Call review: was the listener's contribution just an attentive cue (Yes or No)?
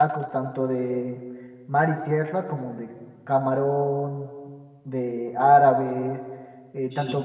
Yes